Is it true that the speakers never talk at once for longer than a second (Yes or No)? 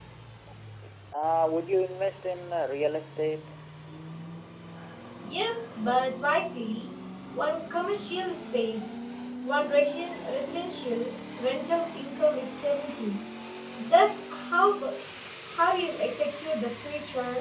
Yes